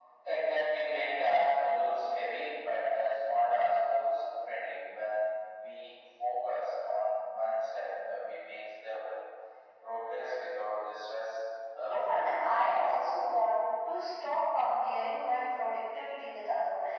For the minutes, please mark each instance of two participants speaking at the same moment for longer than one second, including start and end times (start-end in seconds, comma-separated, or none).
11.8-13.0